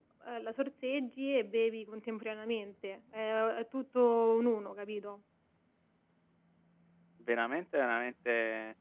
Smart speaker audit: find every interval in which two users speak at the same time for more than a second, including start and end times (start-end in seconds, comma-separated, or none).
none